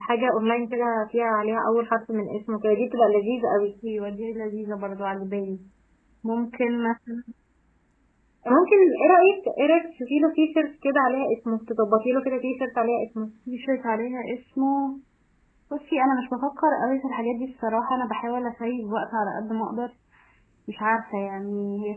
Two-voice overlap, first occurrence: none

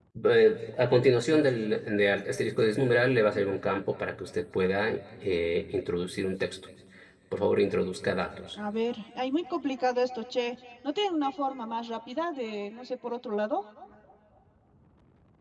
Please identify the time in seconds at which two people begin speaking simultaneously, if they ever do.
none

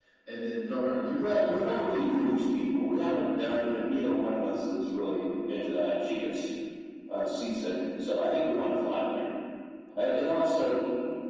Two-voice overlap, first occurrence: 1 s

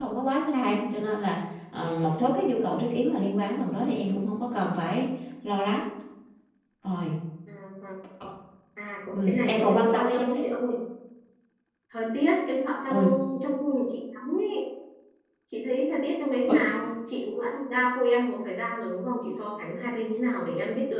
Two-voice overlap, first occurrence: 9 s

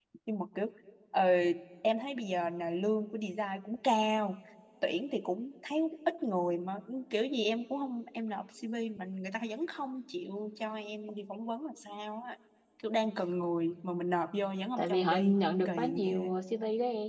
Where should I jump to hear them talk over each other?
15 s

